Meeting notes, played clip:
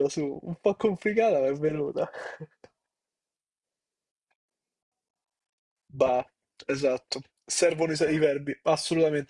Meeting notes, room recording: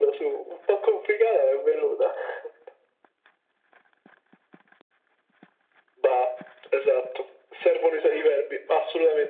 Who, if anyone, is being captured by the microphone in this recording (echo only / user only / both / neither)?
echo only